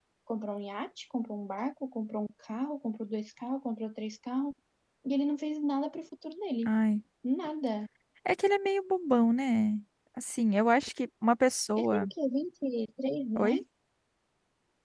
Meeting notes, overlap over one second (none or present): none